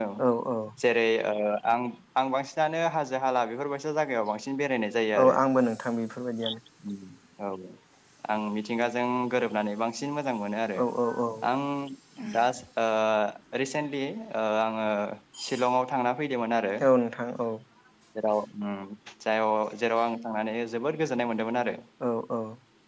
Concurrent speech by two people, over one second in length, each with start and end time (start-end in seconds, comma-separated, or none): none